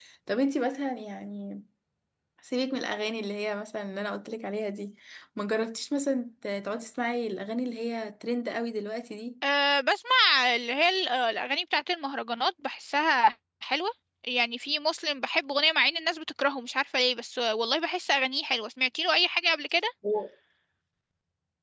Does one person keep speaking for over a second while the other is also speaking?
No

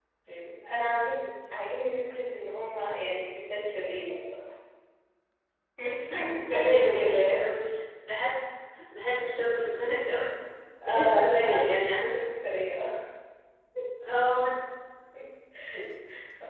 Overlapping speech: Yes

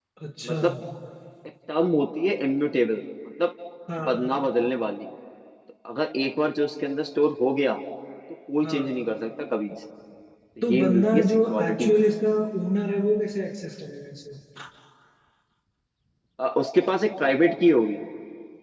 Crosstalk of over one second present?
Yes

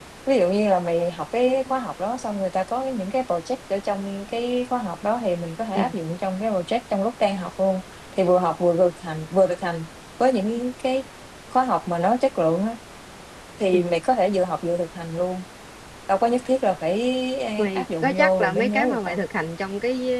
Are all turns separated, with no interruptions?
No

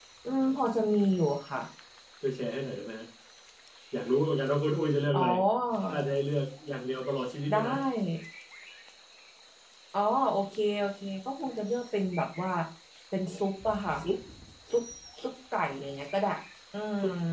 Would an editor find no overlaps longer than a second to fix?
Yes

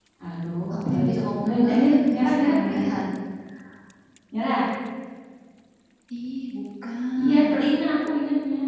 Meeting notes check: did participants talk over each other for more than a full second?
Yes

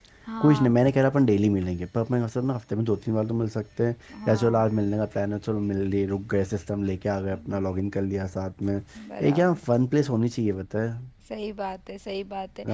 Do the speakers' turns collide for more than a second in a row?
No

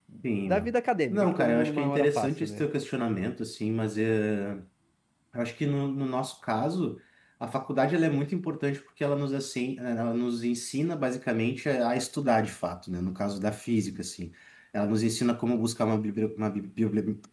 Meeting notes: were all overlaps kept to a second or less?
No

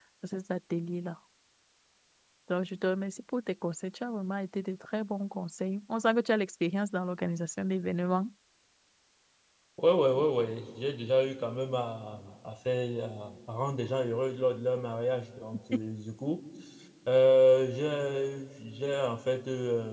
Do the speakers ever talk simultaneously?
No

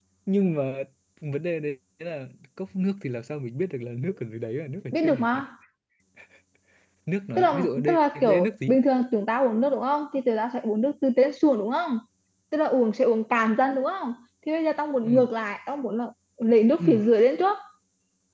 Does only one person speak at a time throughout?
No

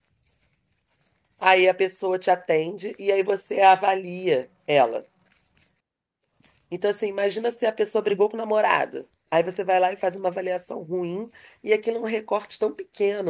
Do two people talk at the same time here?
No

